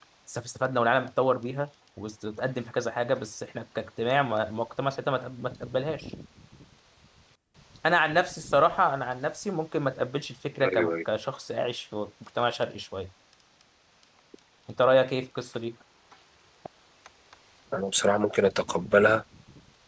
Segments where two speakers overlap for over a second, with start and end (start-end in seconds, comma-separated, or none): none